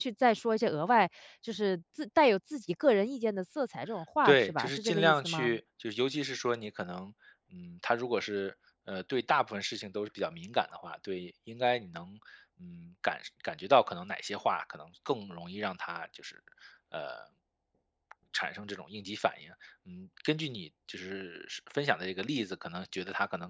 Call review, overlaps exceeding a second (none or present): present